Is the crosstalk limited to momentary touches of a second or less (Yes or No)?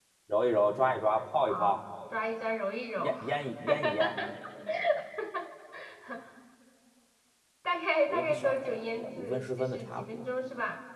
No